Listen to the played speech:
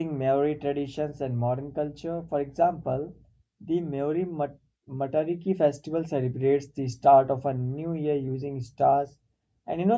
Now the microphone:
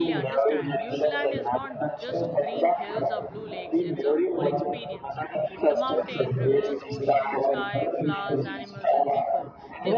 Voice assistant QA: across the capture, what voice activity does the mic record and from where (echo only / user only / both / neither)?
both